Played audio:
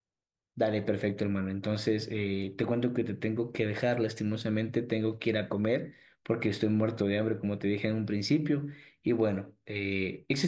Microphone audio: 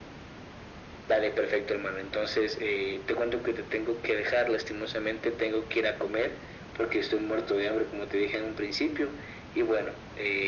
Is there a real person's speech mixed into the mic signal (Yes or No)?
No